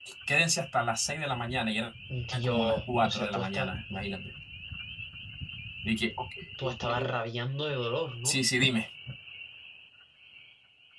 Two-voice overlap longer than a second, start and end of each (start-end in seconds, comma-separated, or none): 2.4-3.7